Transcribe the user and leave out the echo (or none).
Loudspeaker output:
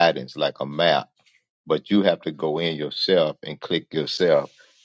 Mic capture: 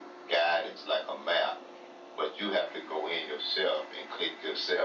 none